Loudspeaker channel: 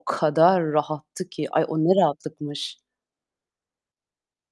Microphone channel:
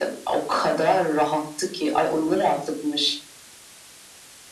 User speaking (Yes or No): No